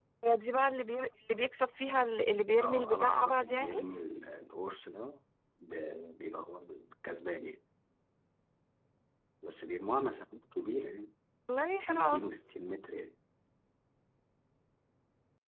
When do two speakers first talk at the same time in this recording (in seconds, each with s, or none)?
2.6 s